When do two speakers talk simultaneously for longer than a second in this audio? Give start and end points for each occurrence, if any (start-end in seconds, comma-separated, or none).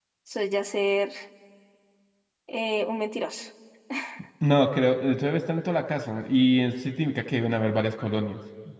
none